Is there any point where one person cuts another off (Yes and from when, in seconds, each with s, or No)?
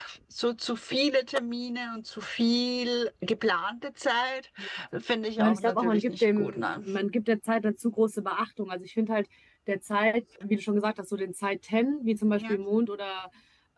Yes, from 5.4 s